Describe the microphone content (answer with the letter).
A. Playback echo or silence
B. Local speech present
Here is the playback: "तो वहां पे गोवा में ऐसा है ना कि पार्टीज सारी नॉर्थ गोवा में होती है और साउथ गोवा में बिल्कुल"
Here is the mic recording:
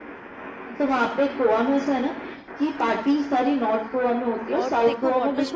B